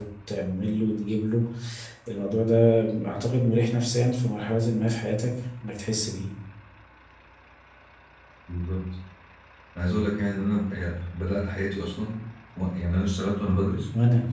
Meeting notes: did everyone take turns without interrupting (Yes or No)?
Yes